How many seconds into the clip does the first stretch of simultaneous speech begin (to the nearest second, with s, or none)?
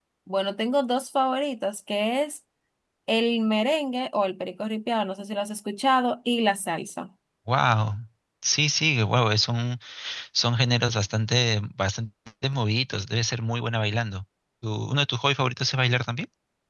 none